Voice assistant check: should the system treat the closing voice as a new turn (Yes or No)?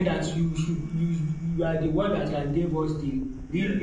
Yes